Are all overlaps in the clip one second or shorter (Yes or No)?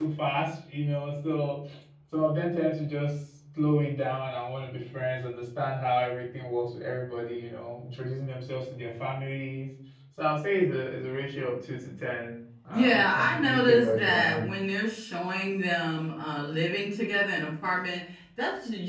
No